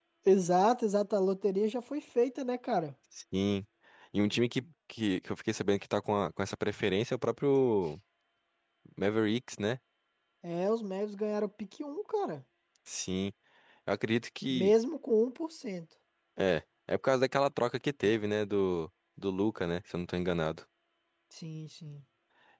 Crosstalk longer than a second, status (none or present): none